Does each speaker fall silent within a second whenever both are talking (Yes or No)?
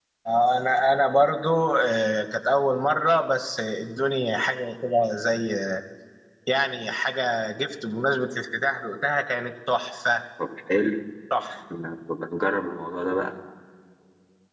Yes